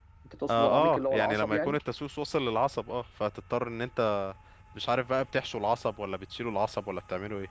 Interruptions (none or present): present